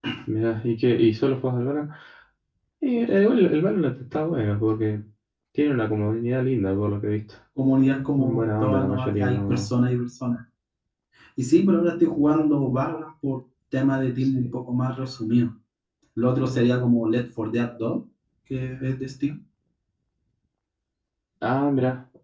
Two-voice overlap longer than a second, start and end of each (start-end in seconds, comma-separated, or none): 8.2-9.7